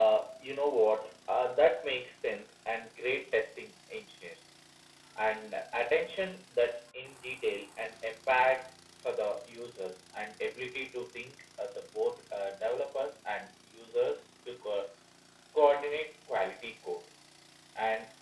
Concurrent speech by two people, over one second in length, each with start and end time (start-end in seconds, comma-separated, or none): none